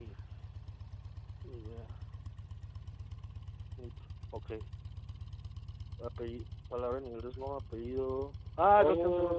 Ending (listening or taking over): taking over